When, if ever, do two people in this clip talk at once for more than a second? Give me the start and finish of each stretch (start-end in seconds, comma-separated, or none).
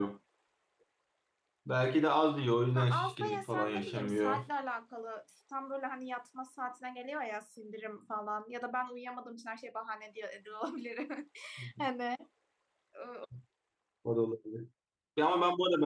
2.7-4.5